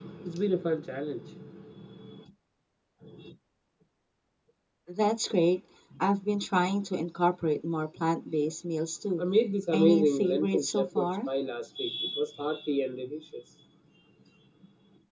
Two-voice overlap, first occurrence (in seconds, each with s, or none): 9.7 s